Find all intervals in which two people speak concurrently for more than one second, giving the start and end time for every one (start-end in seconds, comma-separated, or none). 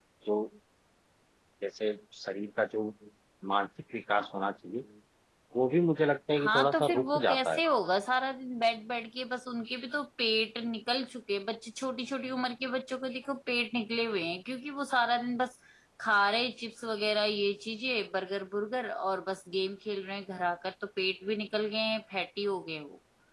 6.4-7.6